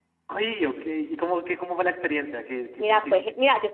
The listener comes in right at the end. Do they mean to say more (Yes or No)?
Yes